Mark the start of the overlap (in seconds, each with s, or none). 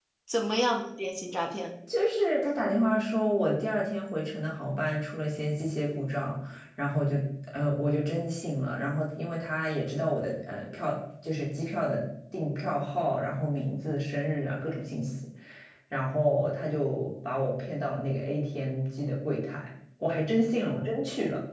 none